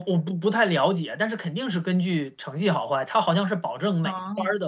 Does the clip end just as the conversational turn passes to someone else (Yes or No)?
No